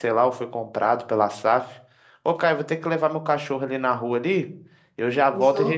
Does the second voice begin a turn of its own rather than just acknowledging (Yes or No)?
No